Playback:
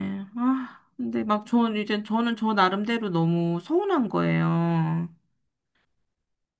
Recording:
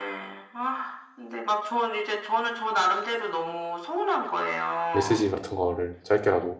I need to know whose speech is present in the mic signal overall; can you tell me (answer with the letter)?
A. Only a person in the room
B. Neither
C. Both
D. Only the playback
C